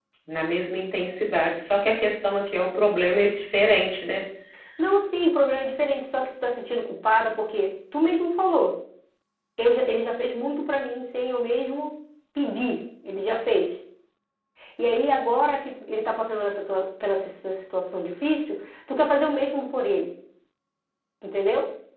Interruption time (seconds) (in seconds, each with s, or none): none